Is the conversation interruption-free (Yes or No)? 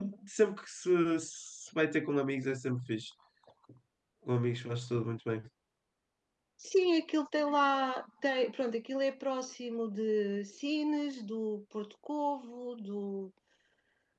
Yes